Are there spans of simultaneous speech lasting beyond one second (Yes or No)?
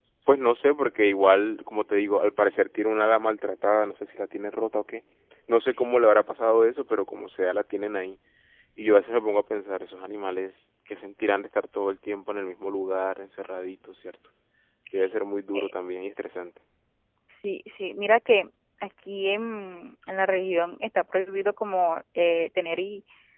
No